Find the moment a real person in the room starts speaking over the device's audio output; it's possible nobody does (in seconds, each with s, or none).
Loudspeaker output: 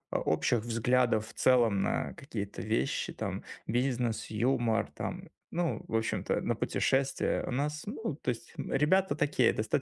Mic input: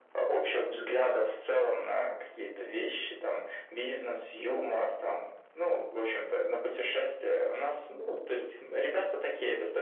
none